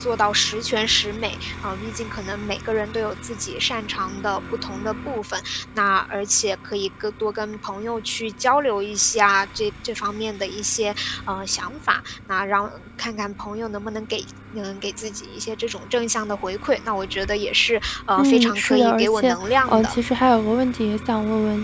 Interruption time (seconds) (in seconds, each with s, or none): 18.2 s